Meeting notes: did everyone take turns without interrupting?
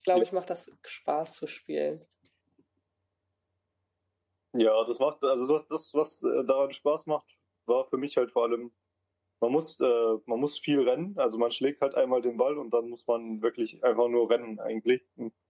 Yes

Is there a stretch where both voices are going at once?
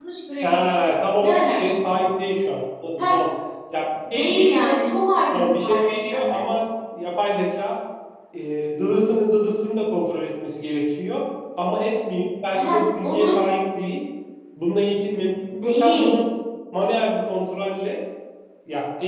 Yes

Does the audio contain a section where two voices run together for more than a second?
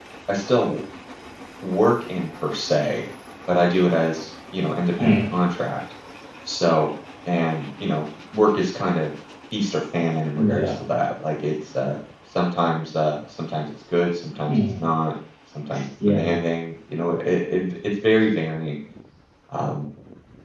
No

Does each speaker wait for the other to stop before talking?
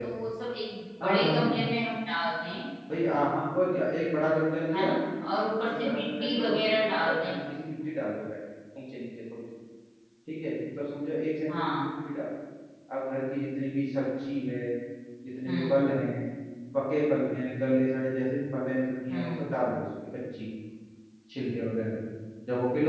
No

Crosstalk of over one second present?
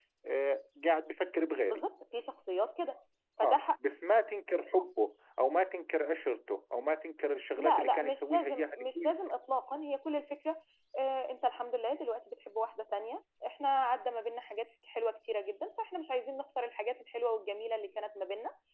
Yes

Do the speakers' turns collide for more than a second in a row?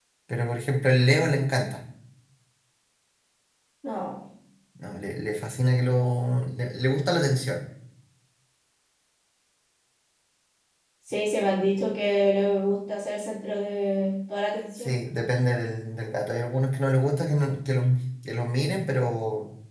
No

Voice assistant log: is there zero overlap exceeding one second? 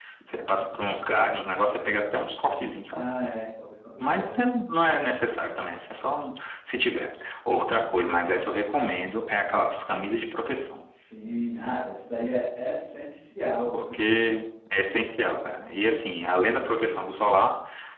Yes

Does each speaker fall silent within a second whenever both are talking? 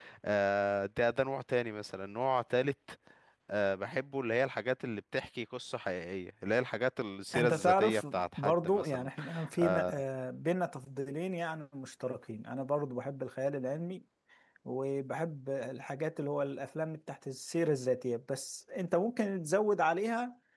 No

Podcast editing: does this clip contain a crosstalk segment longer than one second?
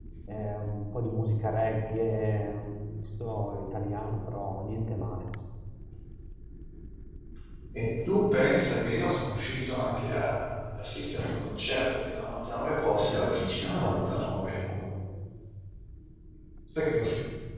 Yes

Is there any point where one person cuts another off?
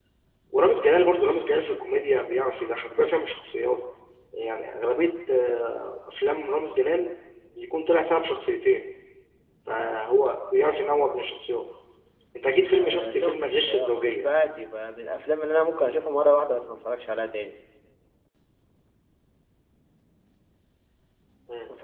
Yes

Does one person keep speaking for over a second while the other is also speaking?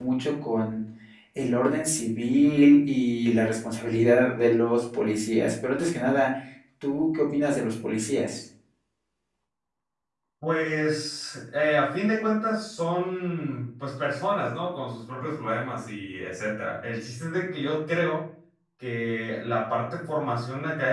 No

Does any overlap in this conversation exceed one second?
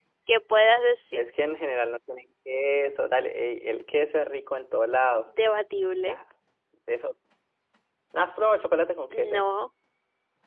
No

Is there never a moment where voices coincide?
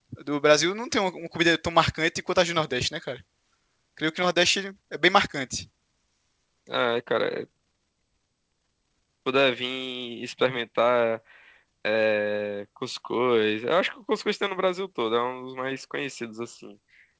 Yes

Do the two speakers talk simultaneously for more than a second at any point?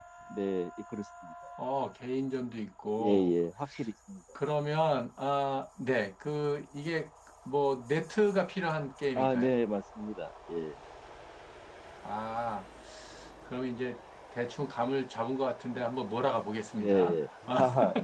No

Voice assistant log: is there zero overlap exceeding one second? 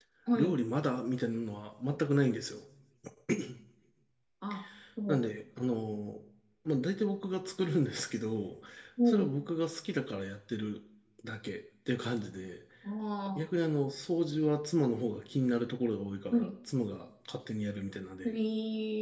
Yes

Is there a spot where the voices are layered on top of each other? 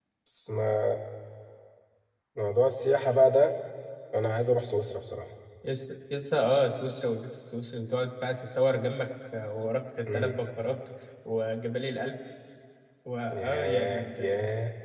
Yes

